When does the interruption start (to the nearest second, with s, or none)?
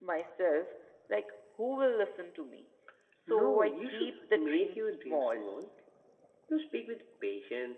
3 s